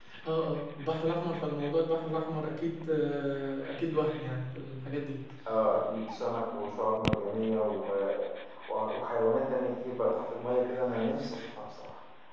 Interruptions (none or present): none